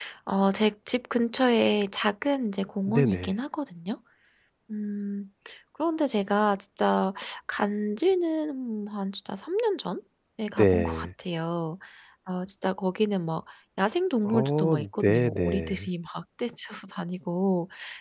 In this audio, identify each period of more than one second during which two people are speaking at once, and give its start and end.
14.2-15.9

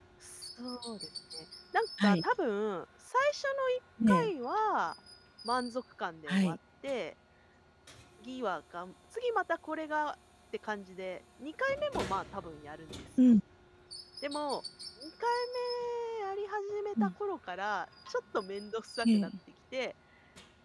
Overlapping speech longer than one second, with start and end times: none

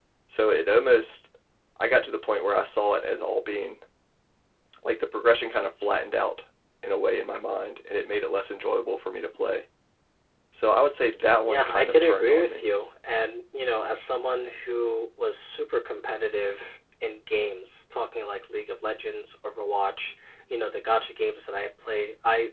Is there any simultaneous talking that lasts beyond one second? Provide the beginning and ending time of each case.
11.5-12.7

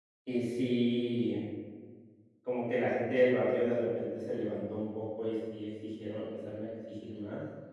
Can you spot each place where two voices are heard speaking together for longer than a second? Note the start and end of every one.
none

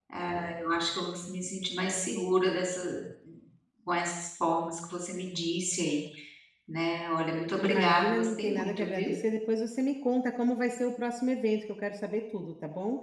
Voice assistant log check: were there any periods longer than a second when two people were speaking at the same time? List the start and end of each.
7.6-9.1

